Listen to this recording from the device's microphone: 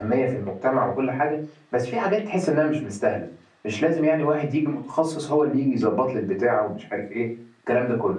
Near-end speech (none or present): present